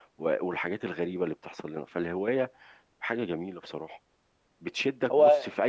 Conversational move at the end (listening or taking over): listening